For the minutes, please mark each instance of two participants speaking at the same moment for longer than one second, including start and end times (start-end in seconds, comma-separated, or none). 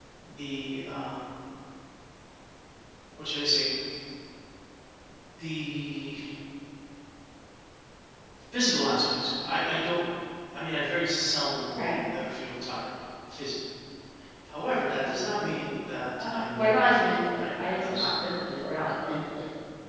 16.3-18.1